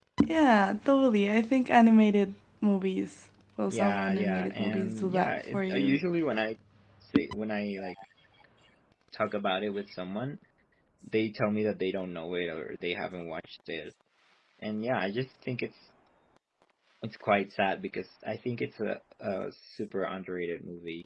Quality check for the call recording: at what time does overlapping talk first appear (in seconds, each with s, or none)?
3.7 s